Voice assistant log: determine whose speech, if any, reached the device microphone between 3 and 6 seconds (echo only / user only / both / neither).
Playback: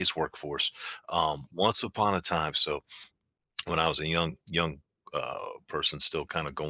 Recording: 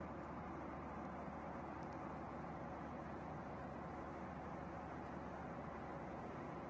neither